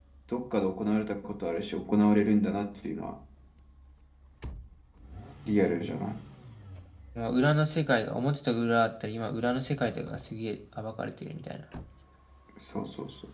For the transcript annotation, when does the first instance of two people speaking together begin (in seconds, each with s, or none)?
none